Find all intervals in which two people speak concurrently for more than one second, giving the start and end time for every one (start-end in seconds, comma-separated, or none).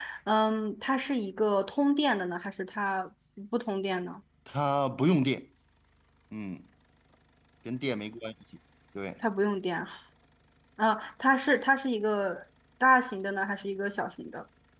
none